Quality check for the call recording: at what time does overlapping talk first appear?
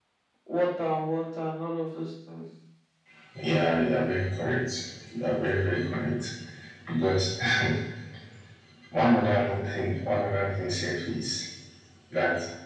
none

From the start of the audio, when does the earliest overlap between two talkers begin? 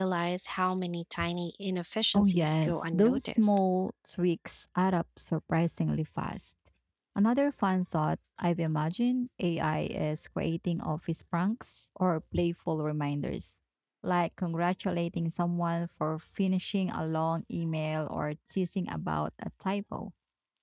2.1 s

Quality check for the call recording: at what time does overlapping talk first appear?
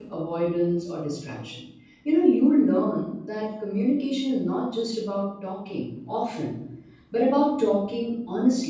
none

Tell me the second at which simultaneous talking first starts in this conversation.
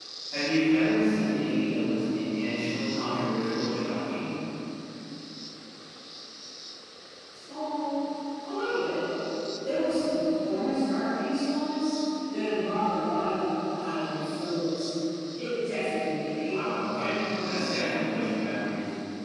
16.4 s

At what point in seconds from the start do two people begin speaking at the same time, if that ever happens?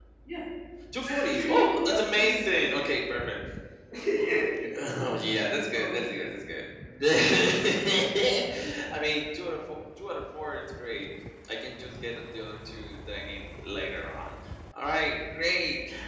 1.1 s

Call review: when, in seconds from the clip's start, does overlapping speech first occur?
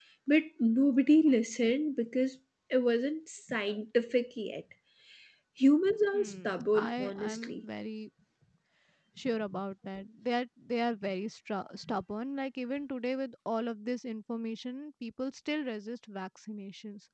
6.1 s

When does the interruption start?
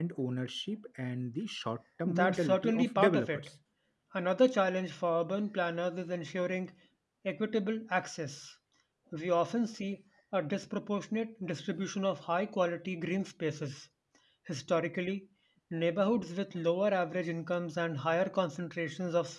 2.1 s

